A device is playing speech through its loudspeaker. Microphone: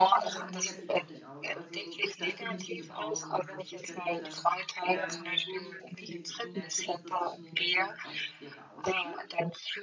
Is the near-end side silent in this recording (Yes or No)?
No